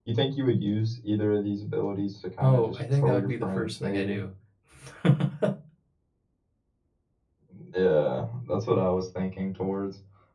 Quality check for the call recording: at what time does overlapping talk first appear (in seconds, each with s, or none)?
2.4 s